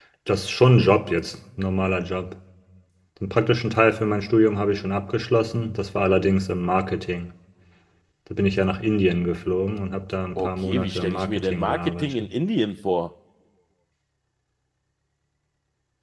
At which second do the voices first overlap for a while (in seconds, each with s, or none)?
10.4 s